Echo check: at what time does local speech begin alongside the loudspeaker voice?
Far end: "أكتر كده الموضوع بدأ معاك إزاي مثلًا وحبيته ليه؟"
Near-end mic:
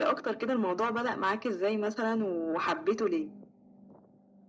none

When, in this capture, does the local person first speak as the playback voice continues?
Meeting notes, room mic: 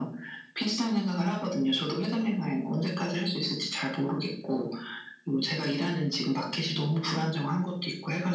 none

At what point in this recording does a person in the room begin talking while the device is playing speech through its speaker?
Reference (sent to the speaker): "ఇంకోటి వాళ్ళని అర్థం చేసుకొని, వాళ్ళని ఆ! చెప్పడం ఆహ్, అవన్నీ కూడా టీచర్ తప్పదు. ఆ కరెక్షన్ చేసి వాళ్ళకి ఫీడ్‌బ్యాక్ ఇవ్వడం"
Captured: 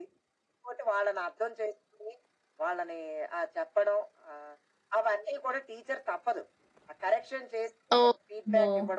8.0 s

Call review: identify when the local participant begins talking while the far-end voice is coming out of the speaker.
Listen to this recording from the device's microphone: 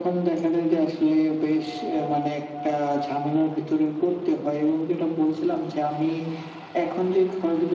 none

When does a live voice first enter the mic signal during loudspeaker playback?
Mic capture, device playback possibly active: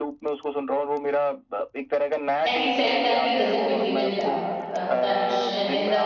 2.4 s

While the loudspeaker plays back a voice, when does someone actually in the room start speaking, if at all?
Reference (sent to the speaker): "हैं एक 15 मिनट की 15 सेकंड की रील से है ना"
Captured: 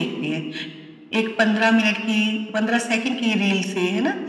none

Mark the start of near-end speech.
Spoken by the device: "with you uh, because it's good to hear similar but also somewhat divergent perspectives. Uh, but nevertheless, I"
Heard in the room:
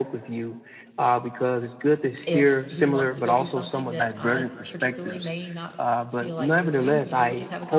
2.2 s

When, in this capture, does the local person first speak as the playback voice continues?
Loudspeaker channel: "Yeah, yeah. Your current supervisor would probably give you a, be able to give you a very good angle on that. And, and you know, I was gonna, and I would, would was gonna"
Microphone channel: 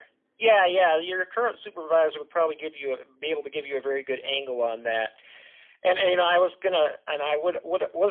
none

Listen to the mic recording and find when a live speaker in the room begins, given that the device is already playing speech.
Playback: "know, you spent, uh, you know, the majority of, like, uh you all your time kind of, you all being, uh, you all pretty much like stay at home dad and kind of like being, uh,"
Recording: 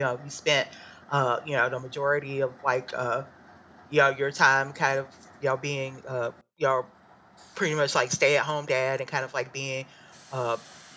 none

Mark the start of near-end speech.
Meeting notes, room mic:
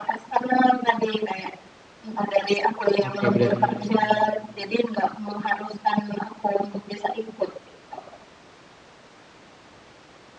3.0 s

